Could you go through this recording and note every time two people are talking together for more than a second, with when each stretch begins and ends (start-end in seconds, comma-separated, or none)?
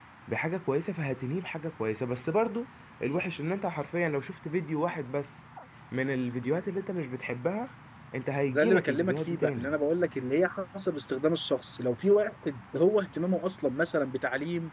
8.5-9.8